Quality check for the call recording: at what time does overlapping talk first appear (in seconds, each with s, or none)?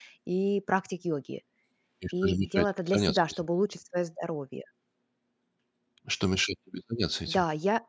2.2 s